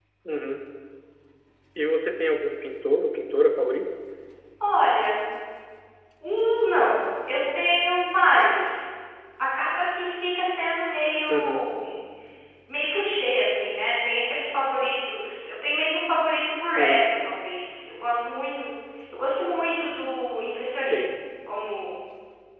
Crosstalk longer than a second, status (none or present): none